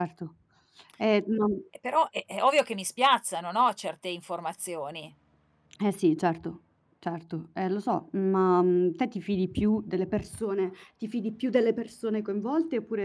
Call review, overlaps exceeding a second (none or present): none